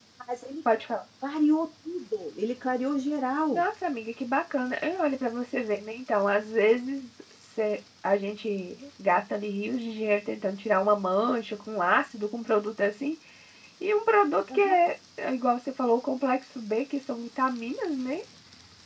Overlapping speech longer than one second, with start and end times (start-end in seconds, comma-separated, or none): none